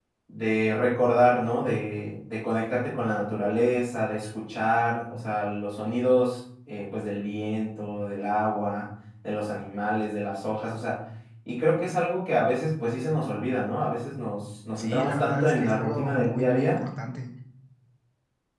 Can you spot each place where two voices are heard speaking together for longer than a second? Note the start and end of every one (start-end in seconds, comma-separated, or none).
14.8-16.8